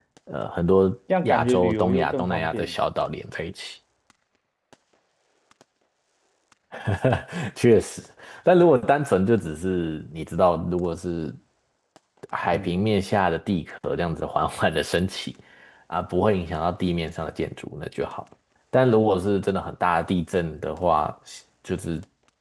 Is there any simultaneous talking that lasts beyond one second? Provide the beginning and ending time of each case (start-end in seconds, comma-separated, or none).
1.2-2.7